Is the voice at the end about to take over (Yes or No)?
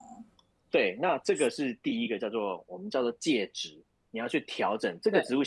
No